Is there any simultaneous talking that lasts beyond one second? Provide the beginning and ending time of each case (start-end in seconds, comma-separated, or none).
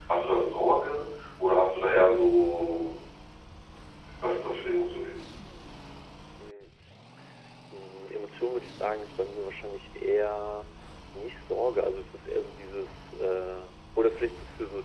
none